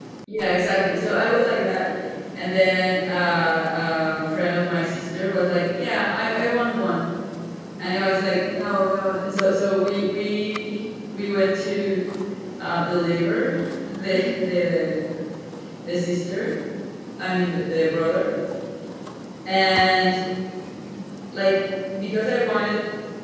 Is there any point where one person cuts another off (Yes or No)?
No